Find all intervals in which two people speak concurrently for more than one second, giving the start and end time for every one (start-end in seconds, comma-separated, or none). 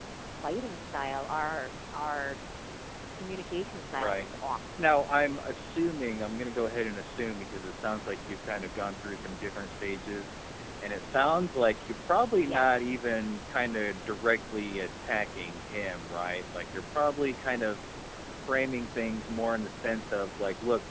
none